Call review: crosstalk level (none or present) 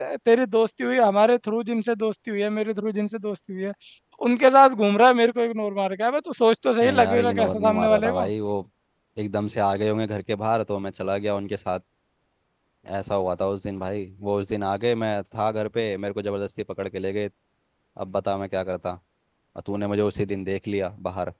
present